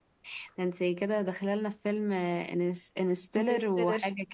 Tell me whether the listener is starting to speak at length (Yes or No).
No